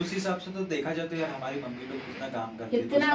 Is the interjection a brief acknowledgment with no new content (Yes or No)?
Yes